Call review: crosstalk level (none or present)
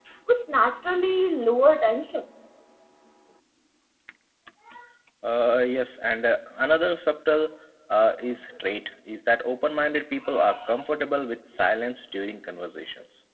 none